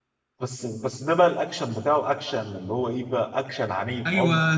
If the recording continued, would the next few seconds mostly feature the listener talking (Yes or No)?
Yes